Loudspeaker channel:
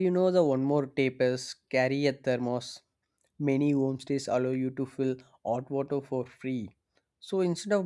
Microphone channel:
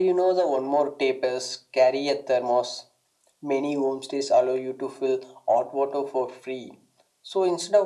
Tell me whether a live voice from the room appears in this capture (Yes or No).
No